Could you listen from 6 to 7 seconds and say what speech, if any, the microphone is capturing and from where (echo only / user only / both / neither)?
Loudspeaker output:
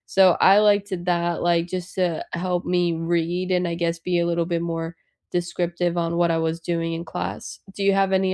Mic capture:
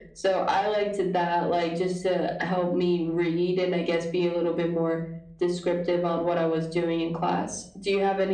echo only